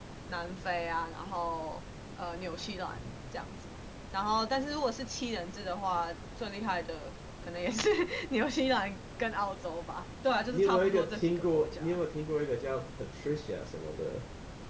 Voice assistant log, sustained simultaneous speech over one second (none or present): present